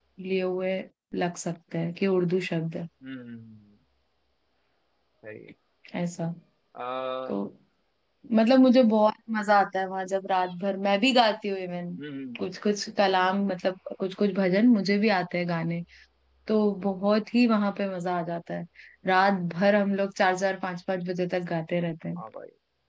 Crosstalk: none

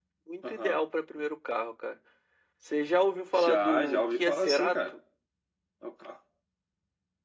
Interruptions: present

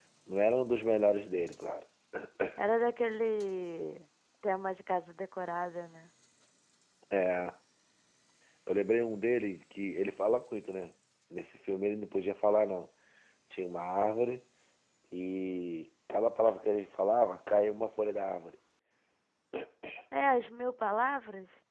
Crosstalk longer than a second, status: none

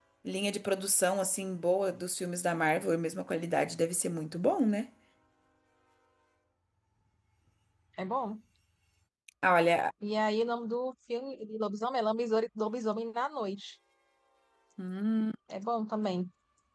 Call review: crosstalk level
none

